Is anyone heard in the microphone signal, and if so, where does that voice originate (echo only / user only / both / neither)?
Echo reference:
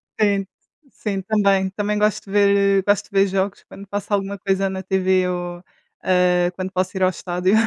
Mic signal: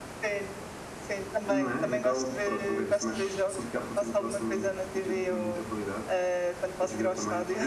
both